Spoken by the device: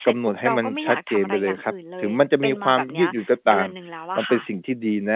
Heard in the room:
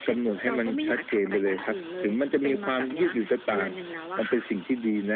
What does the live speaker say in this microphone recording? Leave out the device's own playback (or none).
none